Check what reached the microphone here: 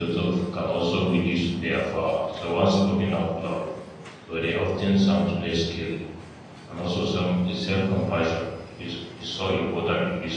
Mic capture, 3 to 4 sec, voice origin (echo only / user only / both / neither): user only